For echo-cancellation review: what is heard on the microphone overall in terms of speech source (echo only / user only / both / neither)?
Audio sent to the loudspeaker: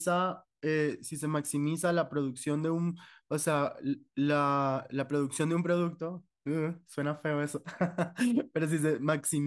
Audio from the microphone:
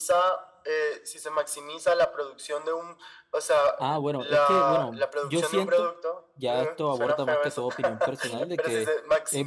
both